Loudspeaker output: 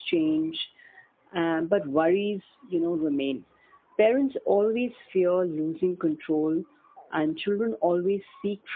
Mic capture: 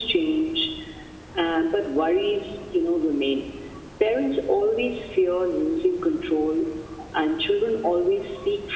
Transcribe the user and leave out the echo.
none

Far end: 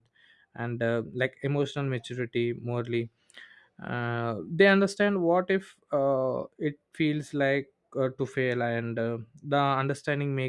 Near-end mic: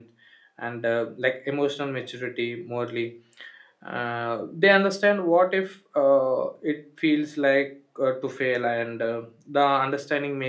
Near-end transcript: none

